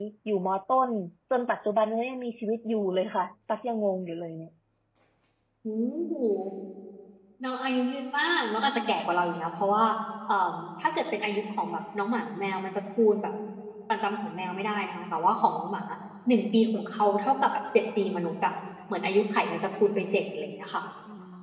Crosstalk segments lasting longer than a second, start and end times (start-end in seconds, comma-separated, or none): none